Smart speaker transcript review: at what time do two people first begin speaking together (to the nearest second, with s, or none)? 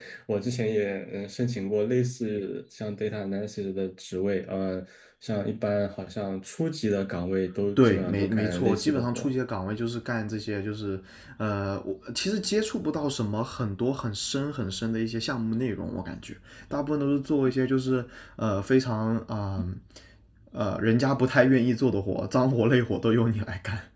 8 s